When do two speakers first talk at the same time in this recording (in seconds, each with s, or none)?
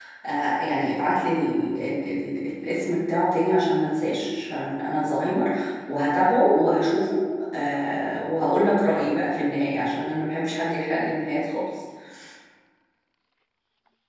none